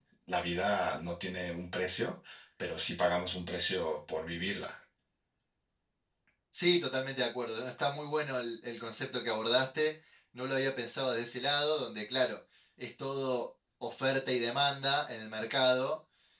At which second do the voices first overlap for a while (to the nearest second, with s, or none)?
none